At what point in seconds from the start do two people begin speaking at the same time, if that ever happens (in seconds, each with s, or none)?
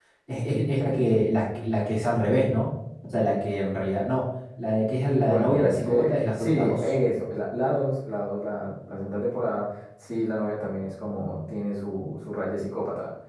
5.2 s